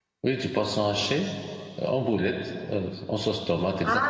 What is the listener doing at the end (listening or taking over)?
taking over